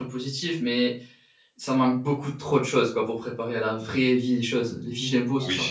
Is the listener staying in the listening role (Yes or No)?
No